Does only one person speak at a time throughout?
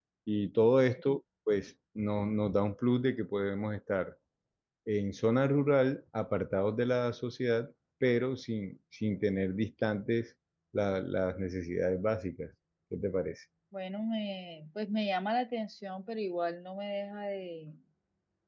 Yes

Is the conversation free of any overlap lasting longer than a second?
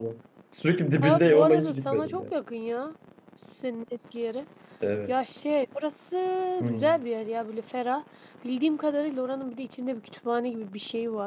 No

